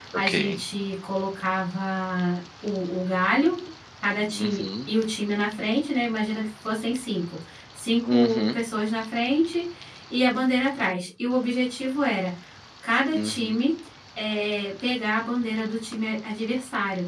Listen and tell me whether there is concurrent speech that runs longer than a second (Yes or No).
No